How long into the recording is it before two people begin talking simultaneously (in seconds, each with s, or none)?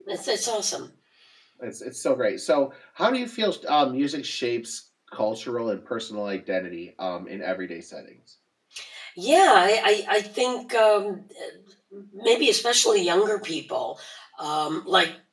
none